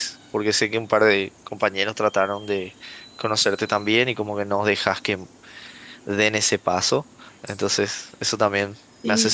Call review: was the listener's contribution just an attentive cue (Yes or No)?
No